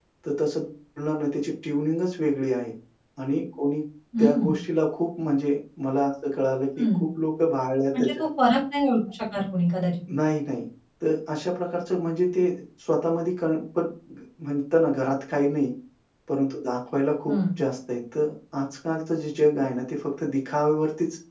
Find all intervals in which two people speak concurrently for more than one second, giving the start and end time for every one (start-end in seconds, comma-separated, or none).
none